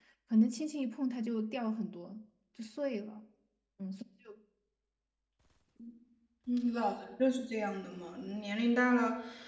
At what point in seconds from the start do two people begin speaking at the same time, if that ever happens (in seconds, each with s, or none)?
none